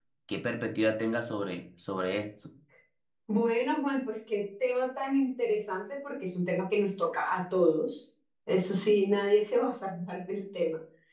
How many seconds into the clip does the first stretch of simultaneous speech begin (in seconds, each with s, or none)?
none